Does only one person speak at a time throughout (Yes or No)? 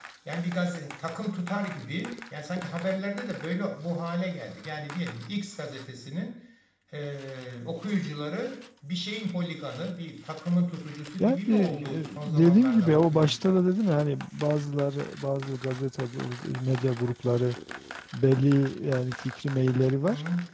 No